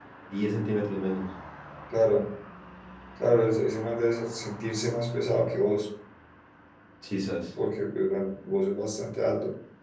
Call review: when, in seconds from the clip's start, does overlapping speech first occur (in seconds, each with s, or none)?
none